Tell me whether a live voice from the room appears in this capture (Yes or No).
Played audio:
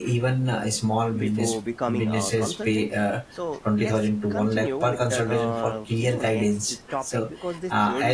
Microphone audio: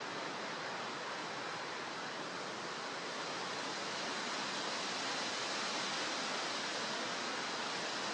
No